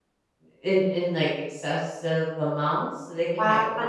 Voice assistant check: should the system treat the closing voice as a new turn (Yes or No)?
Yes